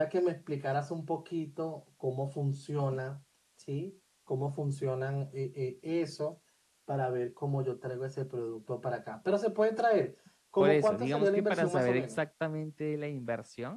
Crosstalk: present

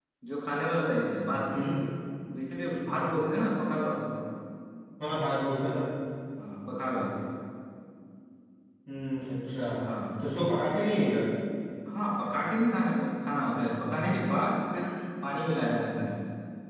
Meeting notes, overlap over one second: none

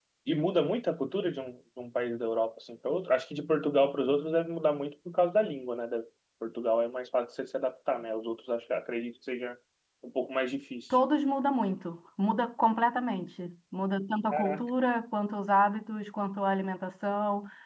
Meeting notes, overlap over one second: none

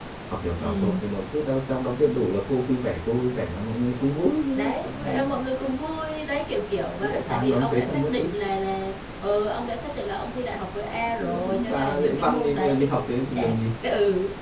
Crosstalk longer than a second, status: present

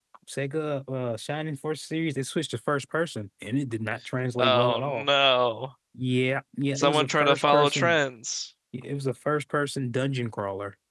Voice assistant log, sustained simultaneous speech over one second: present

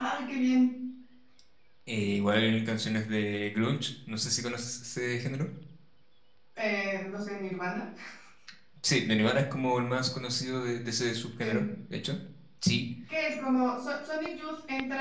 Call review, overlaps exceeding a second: none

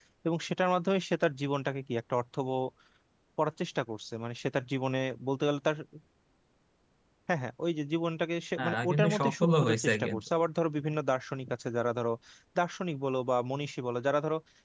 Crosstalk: present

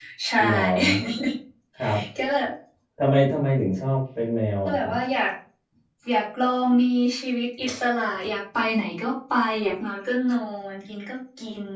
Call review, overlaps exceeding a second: none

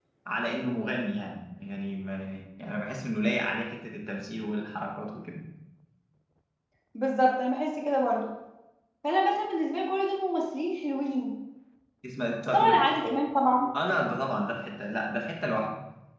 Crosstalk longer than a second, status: none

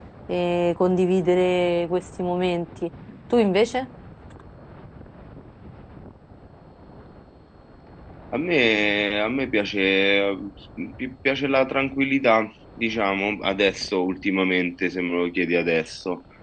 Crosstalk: none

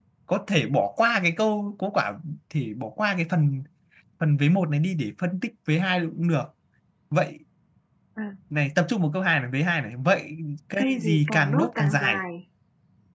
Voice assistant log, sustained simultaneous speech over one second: present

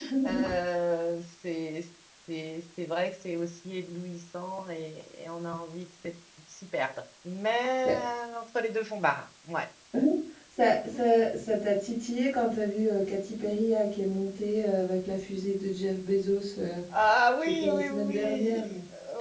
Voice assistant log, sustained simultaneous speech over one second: present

